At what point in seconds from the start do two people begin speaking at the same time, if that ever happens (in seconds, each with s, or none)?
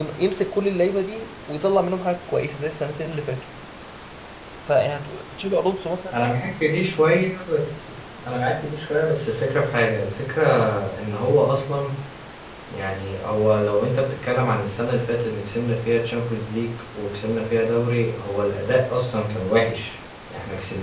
none